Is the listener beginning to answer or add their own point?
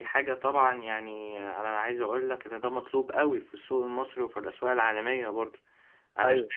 No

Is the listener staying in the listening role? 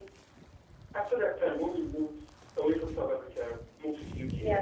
Yes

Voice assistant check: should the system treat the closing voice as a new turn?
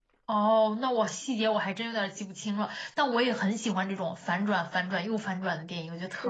Yes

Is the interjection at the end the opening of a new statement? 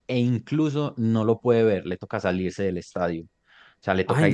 Yes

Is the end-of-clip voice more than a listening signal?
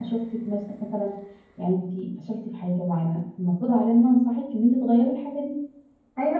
Yes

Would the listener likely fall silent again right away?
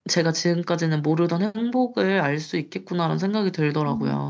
No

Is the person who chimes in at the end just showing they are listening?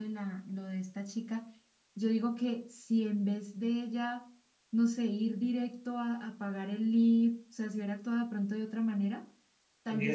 No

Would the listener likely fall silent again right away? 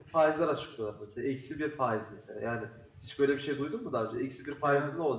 Yes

